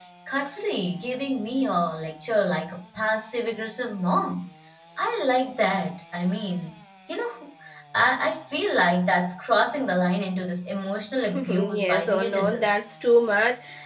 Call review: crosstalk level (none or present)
present